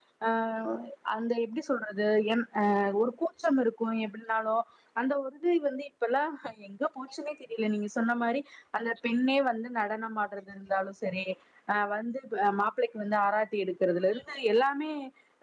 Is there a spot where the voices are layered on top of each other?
No

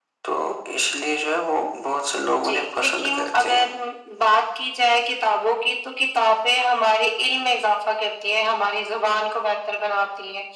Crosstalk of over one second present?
Yes, from 2.4 s

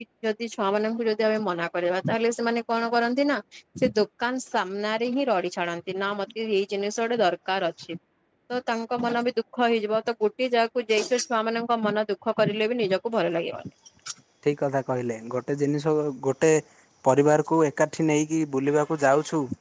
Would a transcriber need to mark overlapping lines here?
No

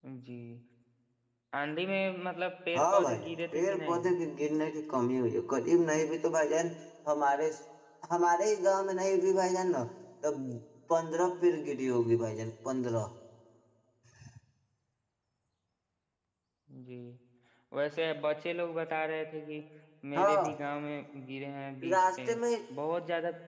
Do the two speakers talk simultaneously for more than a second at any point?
Yes, from 2.8 s

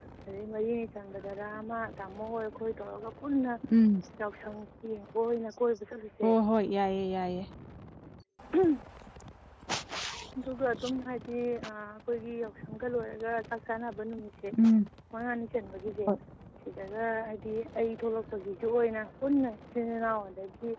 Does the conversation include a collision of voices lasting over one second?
No

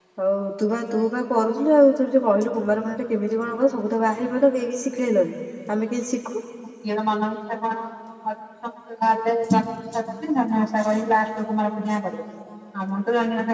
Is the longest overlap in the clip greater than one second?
No

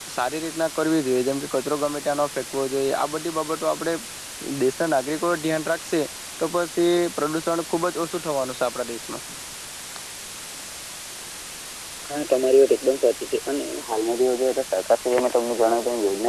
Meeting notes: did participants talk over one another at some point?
No

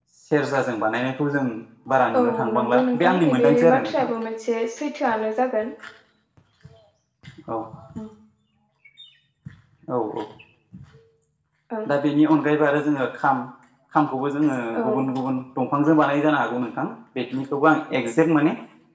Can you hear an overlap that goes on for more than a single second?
Yes, from 2.2 s

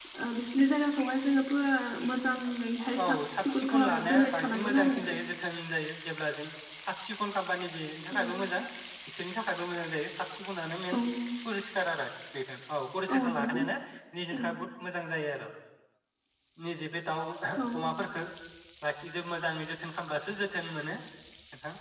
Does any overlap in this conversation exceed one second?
Yes, from 3.0 s

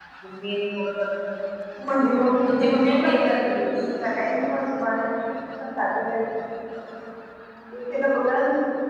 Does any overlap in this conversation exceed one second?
Yes, from 2.4 s

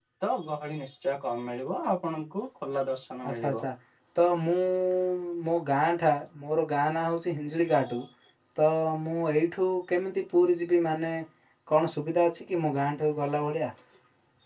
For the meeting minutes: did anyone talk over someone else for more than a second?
No

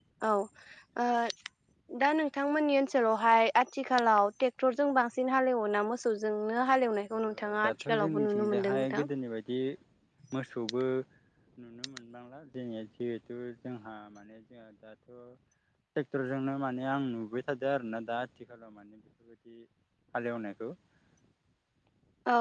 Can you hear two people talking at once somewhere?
Yes, from 7.7 s

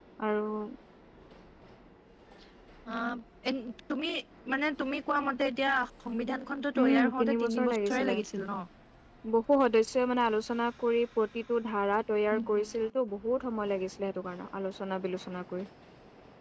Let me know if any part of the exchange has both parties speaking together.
Yes, from 6.8 s

